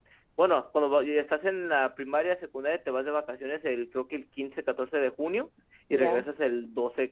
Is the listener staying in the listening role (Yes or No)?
Yes